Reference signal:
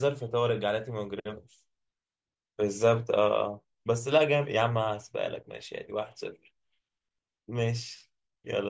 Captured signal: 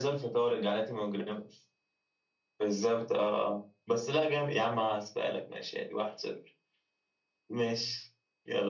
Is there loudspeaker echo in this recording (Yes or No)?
Yes